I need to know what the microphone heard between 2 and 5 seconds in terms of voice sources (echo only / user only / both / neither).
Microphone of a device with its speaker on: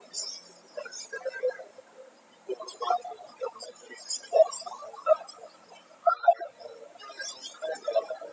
echo only